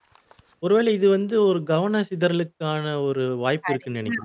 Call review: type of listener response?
taking over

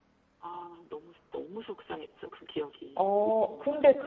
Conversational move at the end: taking over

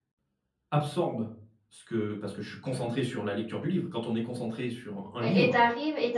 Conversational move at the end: taking over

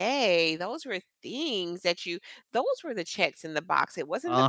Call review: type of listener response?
listening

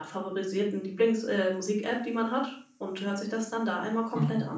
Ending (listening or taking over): taking over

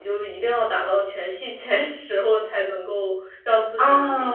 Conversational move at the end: taking over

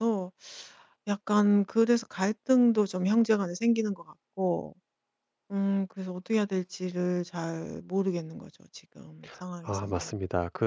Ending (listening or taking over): taking over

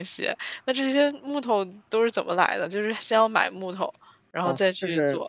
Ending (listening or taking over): taking over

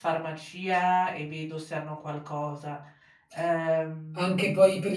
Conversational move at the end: taking over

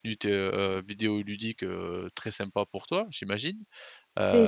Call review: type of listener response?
taking over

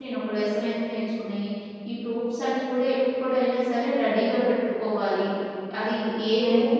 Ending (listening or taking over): listening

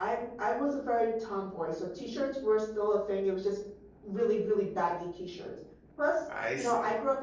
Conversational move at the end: listening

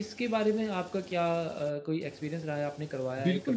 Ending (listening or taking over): taking over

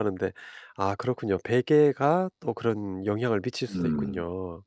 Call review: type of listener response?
taking over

